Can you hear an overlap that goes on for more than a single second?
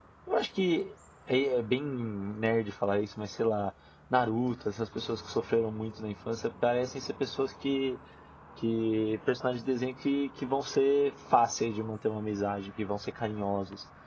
No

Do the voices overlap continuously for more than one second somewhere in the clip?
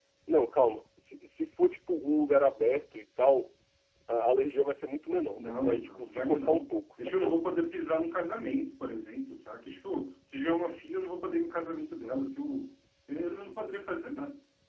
Yes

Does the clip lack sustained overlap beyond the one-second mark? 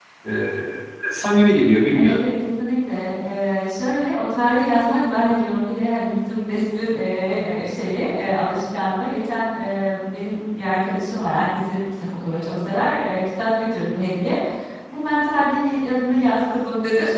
Yes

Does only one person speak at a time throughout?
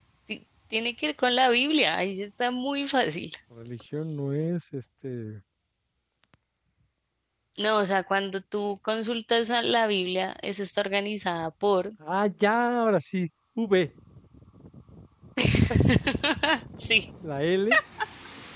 Yes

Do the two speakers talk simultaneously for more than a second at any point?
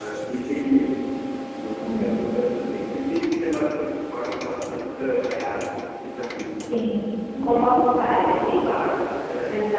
Yes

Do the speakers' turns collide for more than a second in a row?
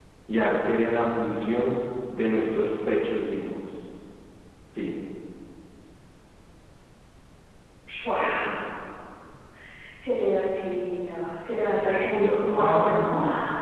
Yes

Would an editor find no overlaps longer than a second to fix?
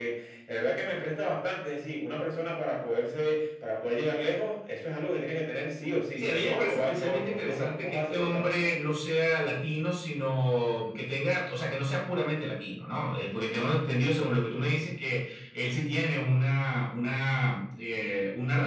No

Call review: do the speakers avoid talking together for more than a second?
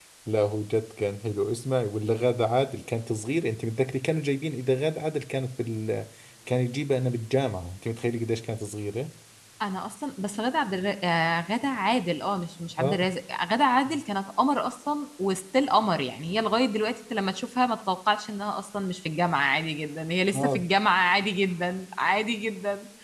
Yes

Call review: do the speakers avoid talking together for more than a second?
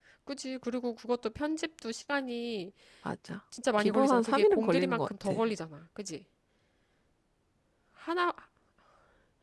No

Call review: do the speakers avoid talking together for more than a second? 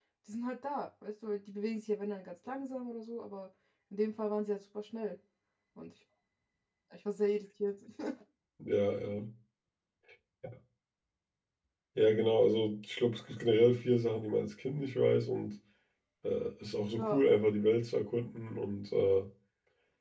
Yes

